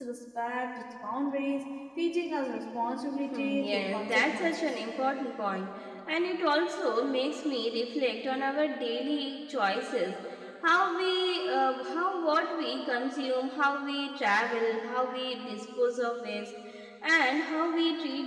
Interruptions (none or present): present